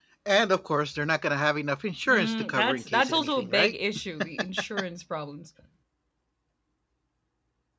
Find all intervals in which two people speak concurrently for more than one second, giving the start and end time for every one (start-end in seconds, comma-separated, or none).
2.1-3.7